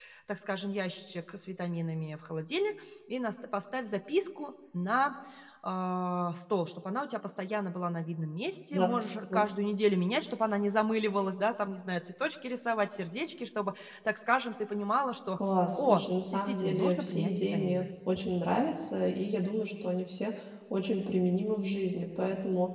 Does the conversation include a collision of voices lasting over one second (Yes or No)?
Yes